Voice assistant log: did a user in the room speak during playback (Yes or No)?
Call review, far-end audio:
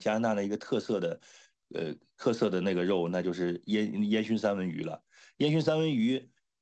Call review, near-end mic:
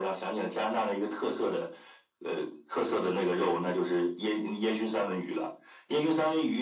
No